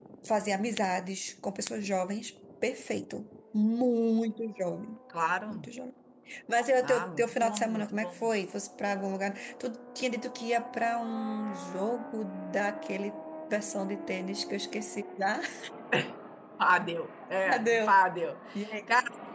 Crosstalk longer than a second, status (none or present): present